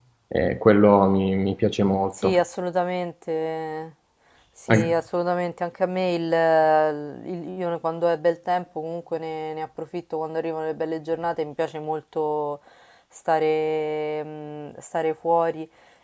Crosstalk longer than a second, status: none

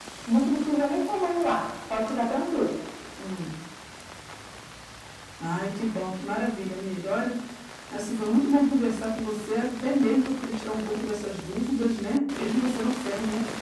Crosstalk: none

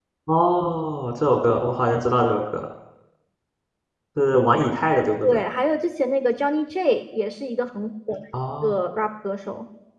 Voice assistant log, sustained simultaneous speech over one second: none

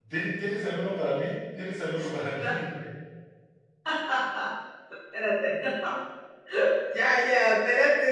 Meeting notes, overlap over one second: none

